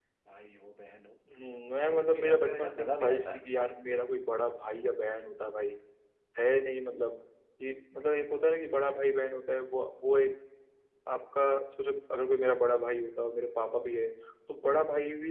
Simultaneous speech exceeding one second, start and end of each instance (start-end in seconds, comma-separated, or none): 1.9-3.4